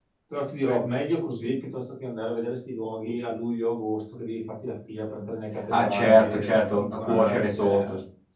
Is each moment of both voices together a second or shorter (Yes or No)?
No